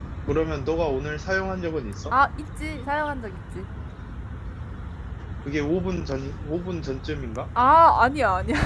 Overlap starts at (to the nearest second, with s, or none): none